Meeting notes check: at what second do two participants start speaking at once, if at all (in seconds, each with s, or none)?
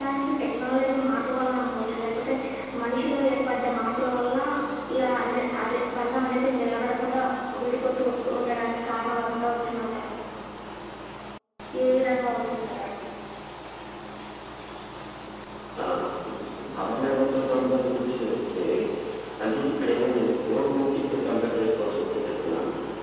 none